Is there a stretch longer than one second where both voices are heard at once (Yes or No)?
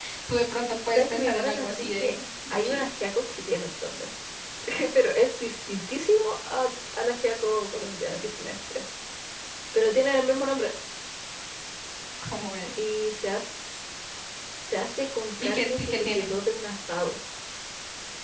Yes